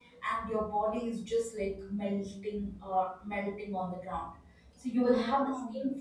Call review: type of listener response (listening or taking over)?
listening